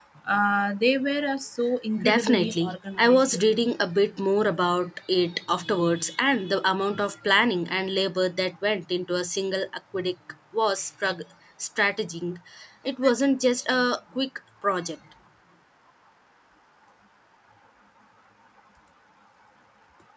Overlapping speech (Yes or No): Yes